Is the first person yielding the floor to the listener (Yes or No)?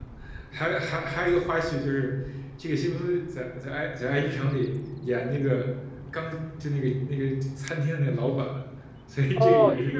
Yes